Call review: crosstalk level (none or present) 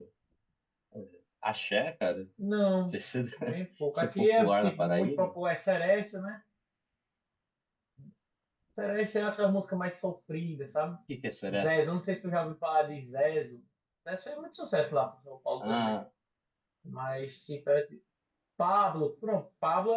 present